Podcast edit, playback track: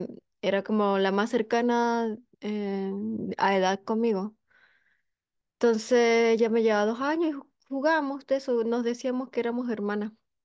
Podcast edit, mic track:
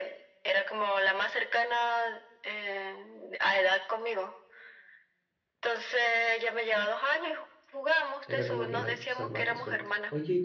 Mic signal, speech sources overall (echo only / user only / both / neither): both